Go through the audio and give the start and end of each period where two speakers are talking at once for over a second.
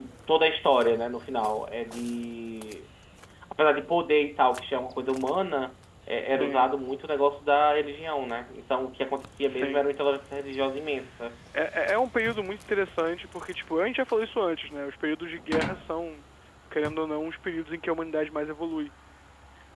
none

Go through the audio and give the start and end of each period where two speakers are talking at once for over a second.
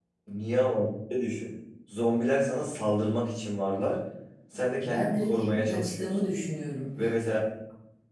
4.9-6.3

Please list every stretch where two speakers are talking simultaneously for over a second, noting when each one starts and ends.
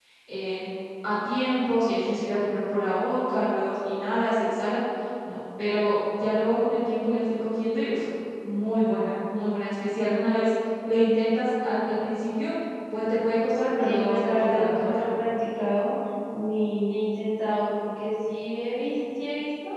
13.8-15.0

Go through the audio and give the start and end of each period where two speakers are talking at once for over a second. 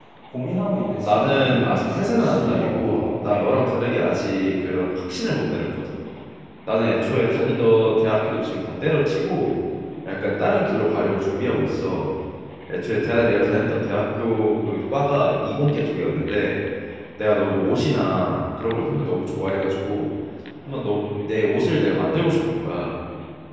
1.1-3.5

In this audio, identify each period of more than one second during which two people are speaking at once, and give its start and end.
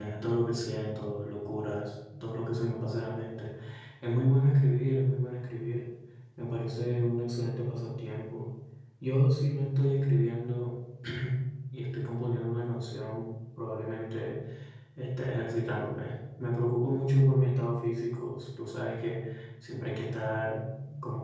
none

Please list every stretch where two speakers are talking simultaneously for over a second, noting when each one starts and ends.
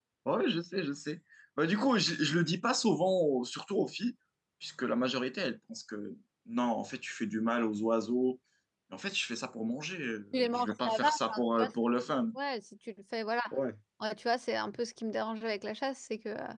10.3-11.7

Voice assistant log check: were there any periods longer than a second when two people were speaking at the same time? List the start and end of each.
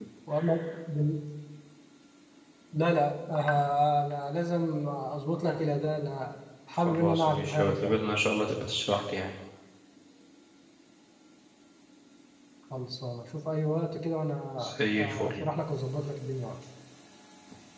6.8-8.0

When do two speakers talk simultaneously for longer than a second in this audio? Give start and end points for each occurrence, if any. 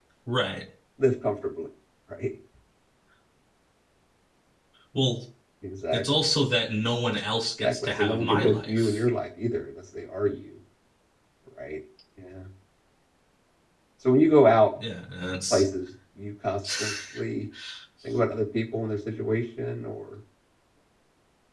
7.6-9.0

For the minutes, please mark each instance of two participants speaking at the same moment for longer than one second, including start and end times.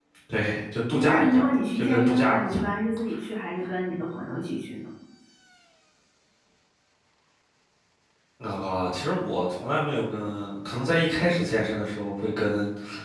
0.9-2.6

